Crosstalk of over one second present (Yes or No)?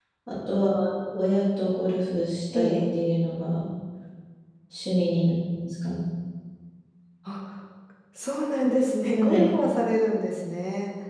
No